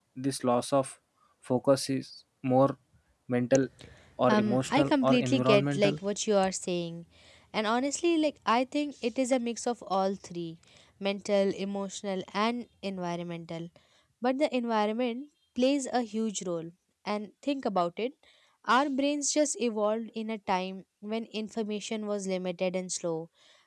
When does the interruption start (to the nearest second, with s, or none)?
4 s